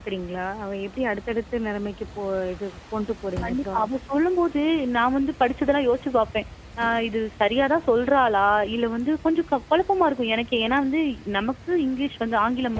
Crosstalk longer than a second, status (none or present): none